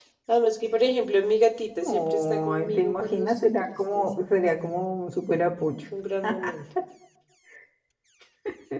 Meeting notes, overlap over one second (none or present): present